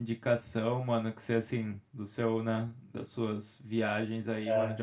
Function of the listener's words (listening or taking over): listening